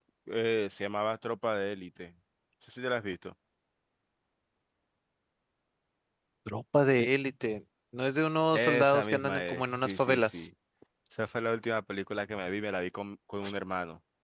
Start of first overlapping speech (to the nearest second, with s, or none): 9 s